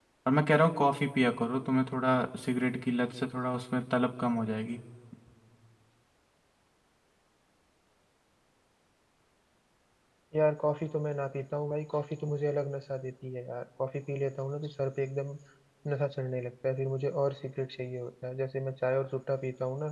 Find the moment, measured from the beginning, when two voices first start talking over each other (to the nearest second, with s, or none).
none